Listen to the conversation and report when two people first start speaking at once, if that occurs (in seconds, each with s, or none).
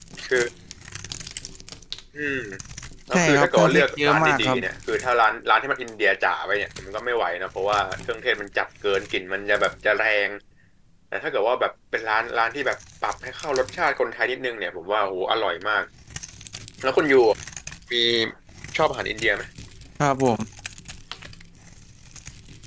3.1 s